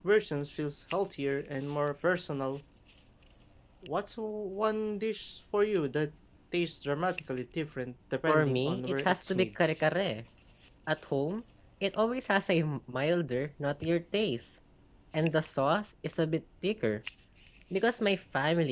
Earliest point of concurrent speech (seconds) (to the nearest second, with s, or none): 8 s